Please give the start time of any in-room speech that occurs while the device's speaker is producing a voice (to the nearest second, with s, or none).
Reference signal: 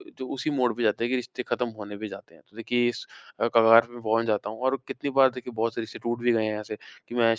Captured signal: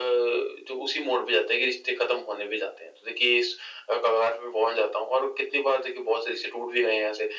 none